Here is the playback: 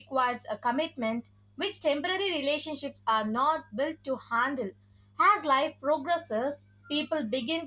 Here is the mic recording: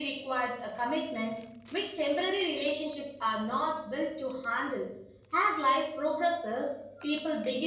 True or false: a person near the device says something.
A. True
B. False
B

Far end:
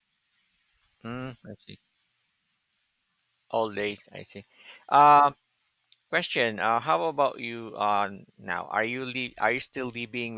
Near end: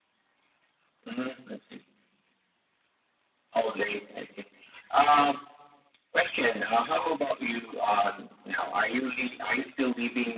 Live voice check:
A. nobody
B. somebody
A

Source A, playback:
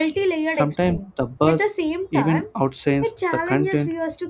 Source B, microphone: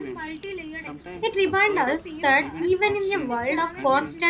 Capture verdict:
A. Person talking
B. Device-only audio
A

